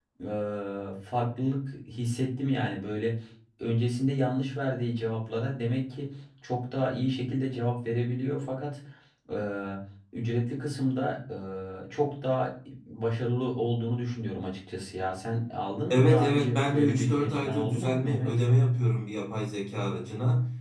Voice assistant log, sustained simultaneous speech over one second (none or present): present